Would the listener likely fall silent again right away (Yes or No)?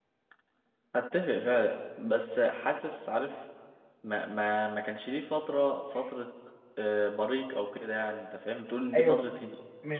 No